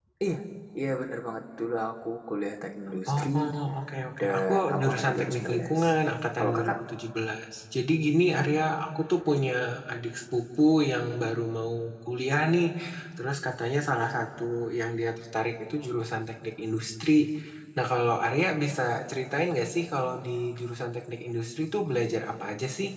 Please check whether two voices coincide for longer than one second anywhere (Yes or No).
Yes